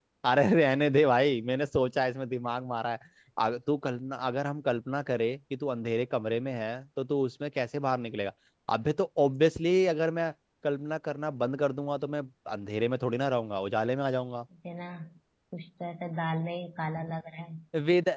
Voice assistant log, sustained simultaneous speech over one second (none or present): none